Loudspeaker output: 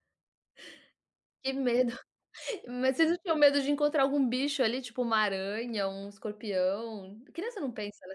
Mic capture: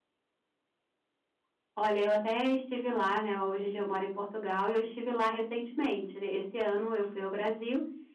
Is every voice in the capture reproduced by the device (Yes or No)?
No